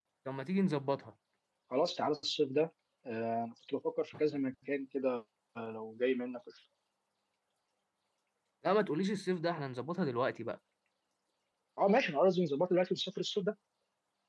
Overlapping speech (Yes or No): No